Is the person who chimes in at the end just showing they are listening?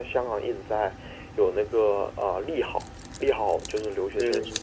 No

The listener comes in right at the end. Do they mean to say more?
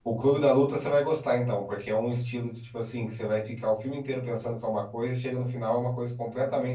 No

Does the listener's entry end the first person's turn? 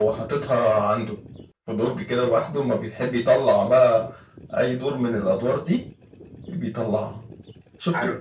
Yes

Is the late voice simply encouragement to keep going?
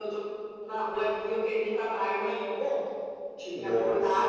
Yes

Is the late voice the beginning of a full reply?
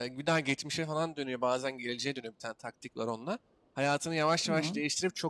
No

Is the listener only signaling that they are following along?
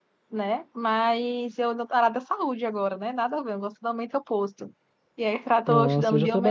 No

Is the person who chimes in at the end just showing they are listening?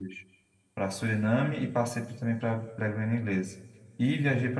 Yes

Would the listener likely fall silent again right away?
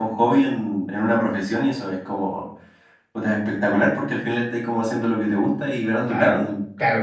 No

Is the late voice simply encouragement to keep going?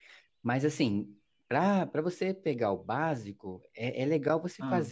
Yes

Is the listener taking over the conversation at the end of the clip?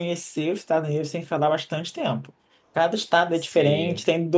No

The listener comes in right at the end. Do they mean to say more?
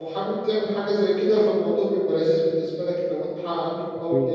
No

